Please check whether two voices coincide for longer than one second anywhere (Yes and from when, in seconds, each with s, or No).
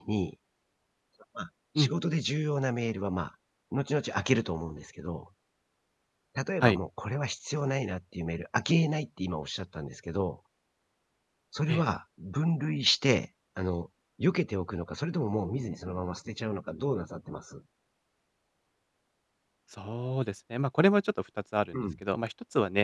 No